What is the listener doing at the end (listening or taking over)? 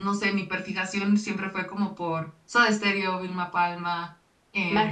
listening